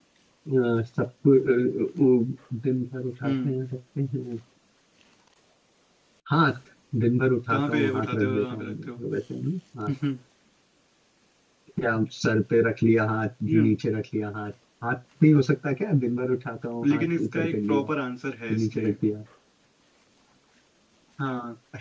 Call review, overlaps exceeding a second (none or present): present